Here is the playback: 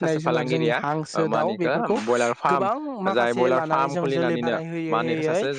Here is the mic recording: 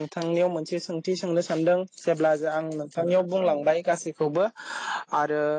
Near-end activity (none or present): present